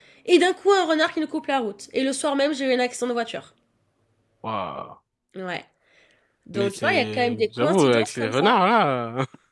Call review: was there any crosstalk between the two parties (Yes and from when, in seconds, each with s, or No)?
Yes, from 6.5 s